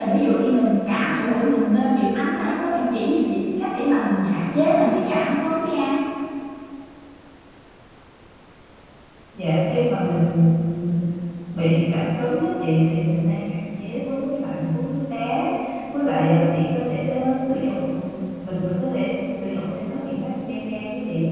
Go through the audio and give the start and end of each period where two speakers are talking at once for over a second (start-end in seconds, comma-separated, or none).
none